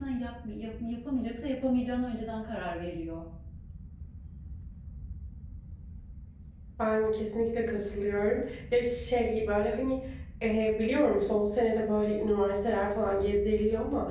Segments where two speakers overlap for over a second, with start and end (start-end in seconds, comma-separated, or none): none